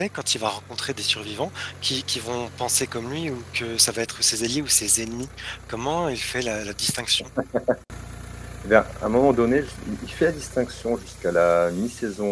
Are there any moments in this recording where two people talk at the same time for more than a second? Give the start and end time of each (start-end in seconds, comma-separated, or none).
none